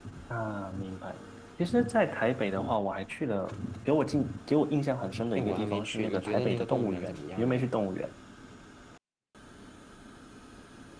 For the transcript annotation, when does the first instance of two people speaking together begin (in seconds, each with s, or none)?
5.4 s